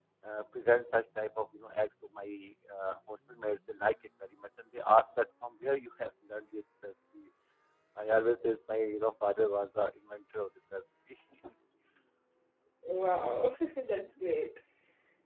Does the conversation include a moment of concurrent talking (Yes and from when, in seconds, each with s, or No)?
No